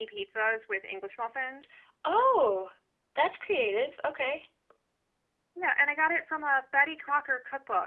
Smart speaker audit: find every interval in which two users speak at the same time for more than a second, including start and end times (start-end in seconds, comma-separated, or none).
none